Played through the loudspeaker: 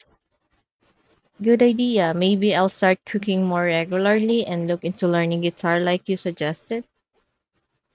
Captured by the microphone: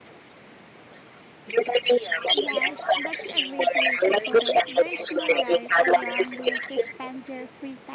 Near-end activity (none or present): present